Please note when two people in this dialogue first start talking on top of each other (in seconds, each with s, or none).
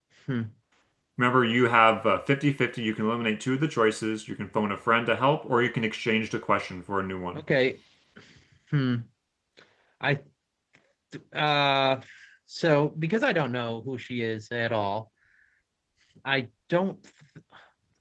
none